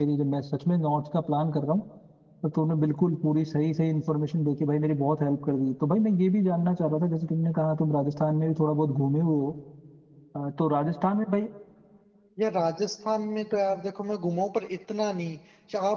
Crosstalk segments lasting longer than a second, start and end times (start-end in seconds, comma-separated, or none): none